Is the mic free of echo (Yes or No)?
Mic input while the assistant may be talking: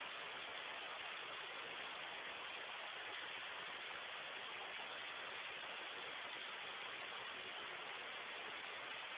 Yes